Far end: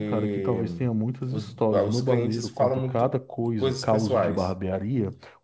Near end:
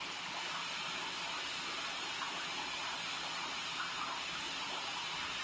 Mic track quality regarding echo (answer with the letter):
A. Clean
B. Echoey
A